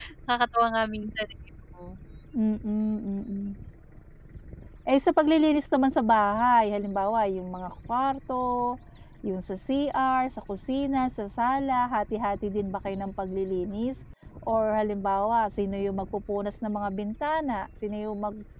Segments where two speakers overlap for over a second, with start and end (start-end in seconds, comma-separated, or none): none